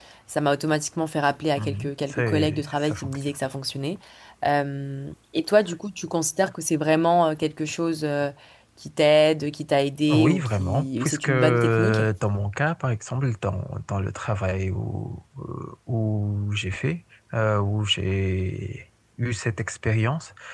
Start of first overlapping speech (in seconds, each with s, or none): 1.6 s